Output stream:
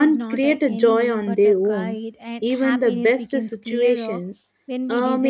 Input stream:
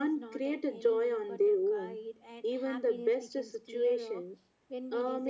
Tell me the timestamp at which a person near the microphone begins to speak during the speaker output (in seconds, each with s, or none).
none